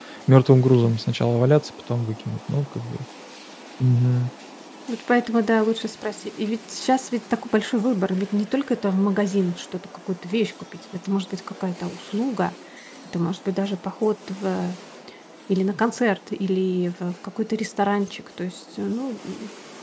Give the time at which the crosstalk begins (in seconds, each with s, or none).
none